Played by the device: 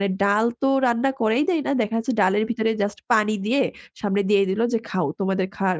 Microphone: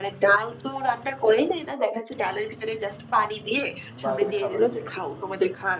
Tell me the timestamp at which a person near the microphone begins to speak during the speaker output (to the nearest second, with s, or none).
4 s